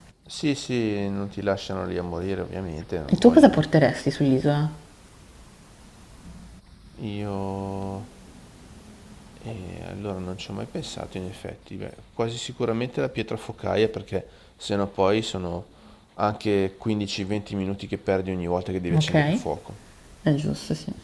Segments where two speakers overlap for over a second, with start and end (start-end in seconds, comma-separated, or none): none